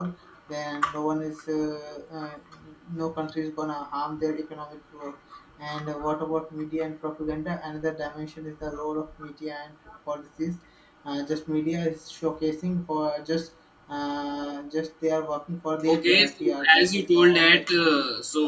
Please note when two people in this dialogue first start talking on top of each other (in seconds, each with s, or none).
15.9 s